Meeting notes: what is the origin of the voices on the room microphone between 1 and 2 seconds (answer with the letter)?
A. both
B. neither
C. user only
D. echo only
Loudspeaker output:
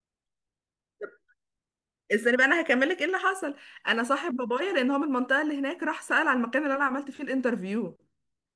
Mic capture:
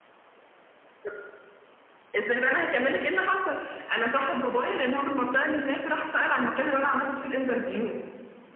B